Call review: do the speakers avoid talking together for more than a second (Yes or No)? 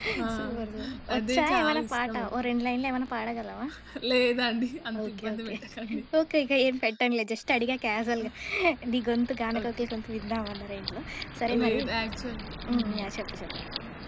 No